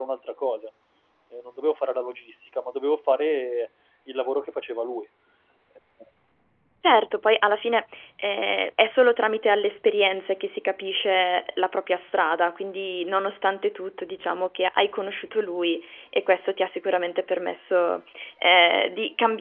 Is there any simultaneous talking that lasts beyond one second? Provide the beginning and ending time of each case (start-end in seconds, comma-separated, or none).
none